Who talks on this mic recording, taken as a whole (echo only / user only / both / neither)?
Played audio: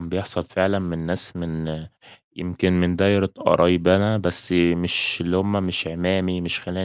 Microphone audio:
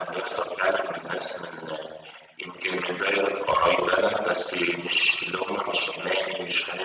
echo only